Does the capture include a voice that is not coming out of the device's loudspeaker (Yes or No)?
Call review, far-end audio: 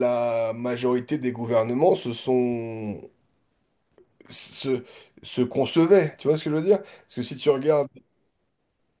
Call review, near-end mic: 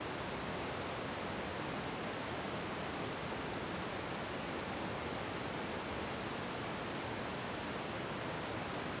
No